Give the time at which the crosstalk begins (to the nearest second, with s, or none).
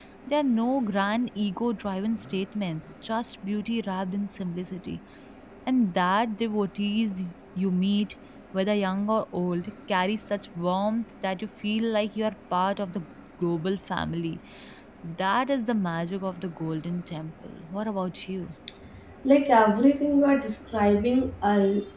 none